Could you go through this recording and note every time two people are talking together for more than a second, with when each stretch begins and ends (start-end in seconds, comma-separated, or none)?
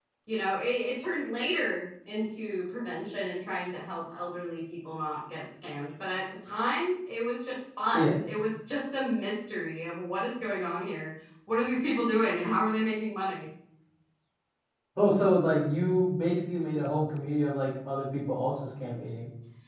none